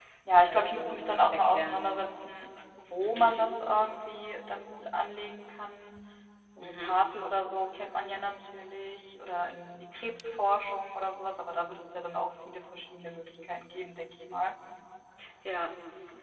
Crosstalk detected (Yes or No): Yes